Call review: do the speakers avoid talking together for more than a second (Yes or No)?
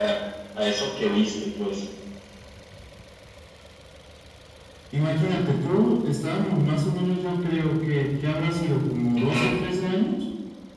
Yes